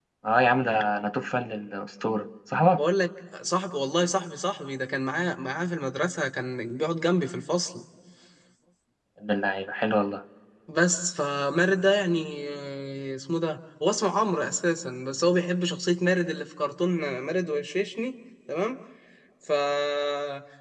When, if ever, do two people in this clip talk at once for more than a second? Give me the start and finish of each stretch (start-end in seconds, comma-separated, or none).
none